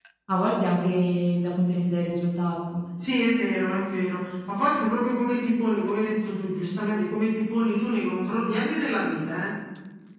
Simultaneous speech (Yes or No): No